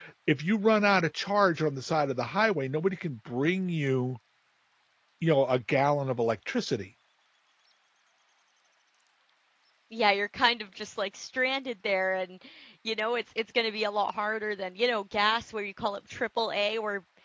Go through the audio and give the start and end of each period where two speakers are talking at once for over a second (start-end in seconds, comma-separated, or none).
none